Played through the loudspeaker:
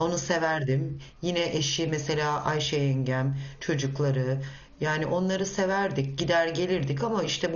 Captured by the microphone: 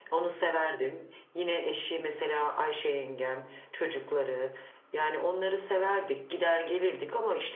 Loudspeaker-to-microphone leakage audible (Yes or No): Yes